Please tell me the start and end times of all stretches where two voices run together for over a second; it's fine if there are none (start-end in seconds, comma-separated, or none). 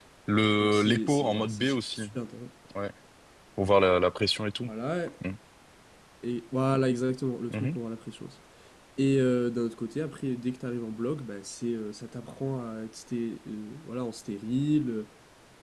0.6-2.0